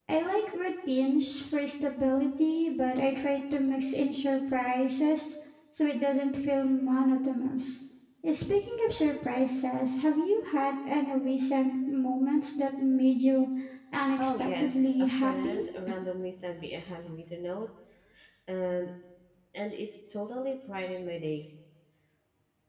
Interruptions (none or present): present